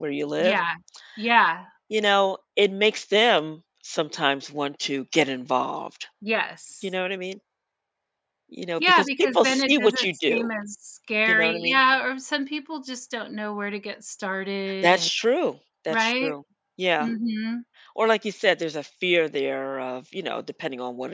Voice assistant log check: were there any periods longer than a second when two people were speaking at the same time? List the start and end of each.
8.8-10.5

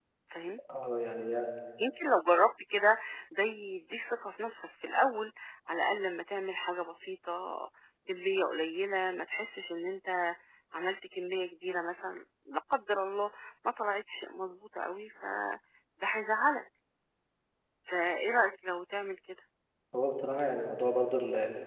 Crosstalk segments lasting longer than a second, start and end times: none

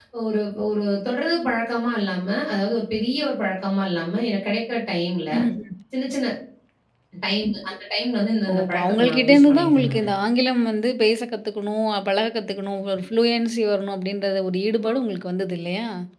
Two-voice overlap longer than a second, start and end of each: 8.5-10.0

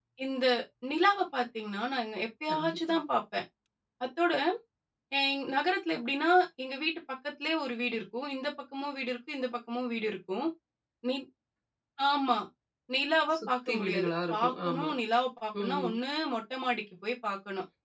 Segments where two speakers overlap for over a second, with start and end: 13.3-14.9

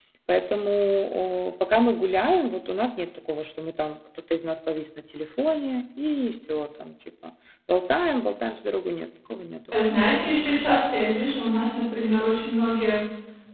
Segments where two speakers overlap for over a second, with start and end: none

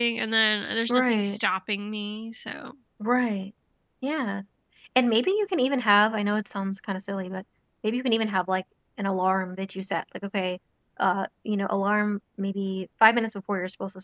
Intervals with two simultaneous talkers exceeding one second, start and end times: none

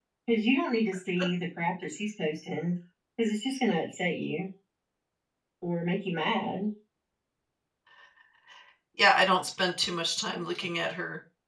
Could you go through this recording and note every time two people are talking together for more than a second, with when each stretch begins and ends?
none

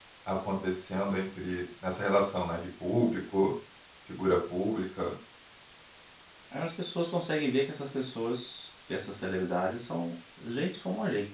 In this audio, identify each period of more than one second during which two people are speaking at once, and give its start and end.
none

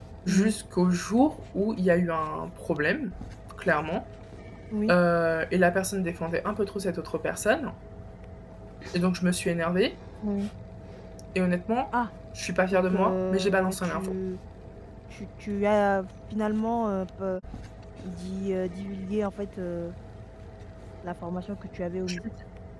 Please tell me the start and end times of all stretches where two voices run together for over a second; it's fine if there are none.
12.7-14.1

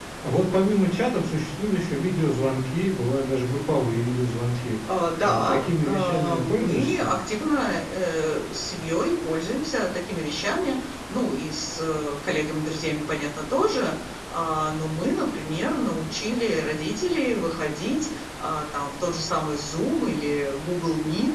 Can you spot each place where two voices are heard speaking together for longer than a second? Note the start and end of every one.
5.2-7.1

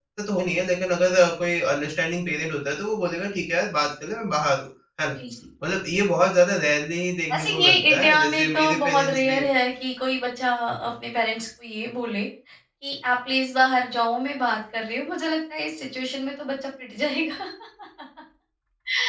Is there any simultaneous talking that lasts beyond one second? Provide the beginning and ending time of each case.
7.3-9.4

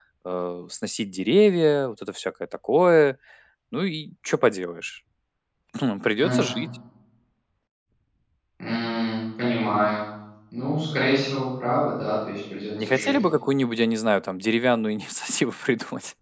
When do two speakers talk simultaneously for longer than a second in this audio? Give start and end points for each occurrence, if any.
none

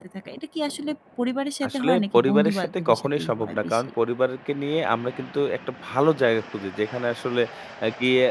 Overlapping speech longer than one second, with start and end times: 1.7-3.9

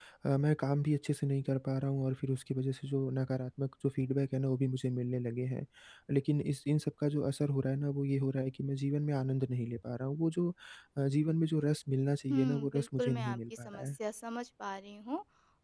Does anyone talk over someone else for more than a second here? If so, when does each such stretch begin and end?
12.3-14.0

